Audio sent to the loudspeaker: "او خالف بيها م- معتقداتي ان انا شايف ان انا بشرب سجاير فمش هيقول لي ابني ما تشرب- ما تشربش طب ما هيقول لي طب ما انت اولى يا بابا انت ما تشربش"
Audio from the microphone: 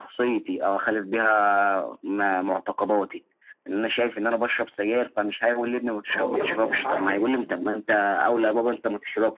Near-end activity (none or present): present